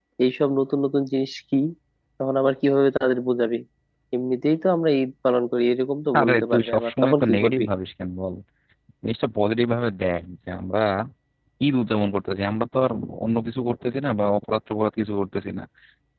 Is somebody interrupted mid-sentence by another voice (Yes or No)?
Yes